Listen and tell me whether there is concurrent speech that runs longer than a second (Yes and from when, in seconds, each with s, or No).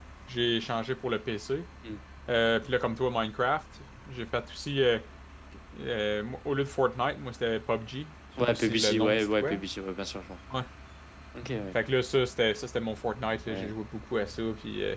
Yes, from 8.4 s